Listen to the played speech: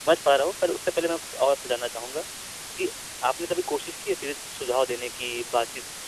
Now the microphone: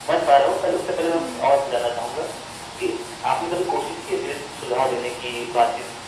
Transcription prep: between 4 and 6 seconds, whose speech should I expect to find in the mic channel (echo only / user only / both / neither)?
echo only